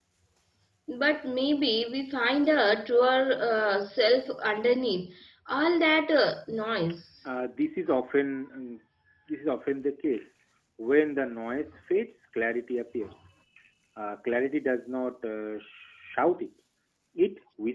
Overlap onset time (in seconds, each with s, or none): none